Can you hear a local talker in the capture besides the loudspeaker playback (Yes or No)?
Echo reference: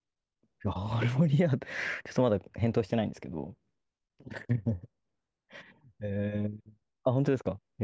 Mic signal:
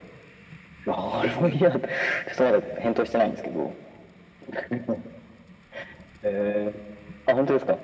Yes